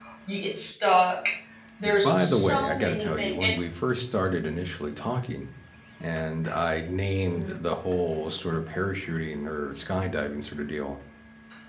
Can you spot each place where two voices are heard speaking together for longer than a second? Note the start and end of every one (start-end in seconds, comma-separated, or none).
2.0-3.5